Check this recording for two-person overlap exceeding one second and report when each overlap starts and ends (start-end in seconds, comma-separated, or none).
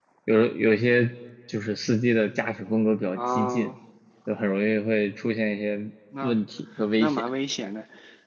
none